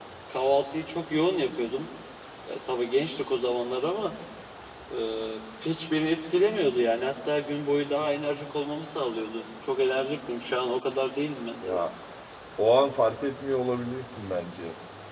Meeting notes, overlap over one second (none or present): none